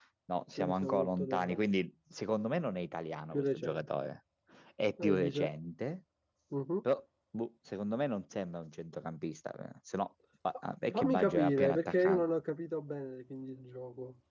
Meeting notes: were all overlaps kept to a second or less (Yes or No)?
No